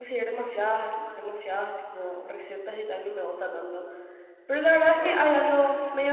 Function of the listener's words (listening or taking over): listening